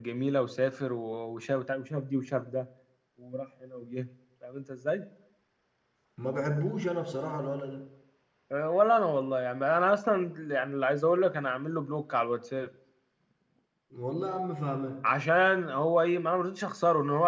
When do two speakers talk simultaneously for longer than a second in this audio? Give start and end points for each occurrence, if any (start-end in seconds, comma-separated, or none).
none